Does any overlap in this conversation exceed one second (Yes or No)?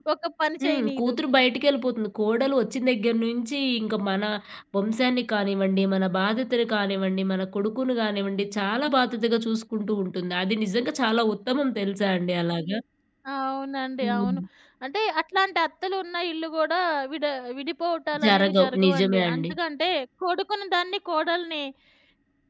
Yes